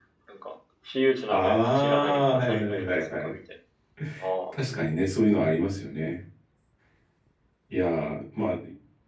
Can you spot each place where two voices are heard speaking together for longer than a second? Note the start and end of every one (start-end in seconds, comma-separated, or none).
1.3-3.3